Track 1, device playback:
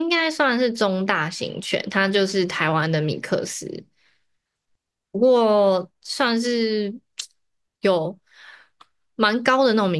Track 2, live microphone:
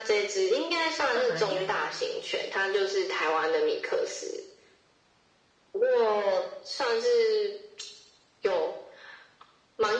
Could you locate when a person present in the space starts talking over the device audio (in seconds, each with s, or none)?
1.0 s